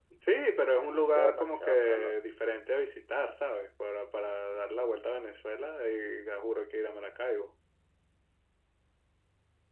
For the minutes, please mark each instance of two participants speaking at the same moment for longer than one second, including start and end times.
0.8-2.1

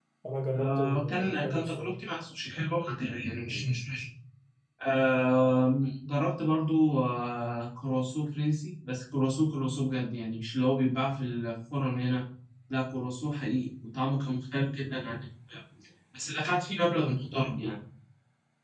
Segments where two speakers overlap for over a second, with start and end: 0.5-1.9

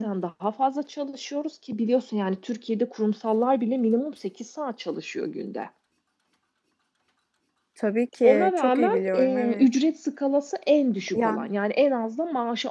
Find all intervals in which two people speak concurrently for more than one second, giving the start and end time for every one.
8.2-9.7

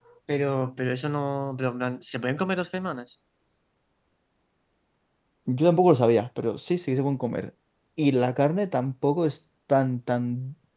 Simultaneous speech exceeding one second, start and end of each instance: none

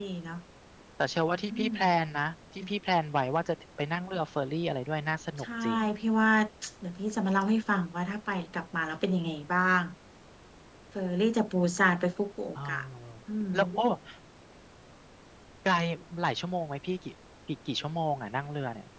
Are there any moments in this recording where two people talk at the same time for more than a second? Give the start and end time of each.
none

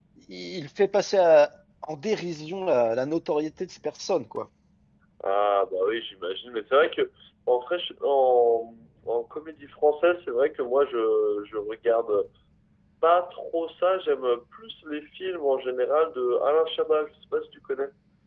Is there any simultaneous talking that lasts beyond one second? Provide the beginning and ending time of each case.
none

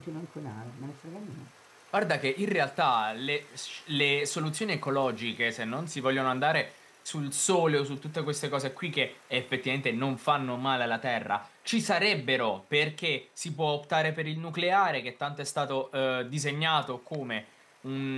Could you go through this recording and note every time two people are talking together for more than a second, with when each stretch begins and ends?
none

